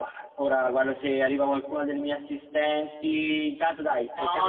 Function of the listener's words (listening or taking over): taking over